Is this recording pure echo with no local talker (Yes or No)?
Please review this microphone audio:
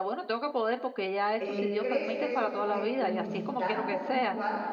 No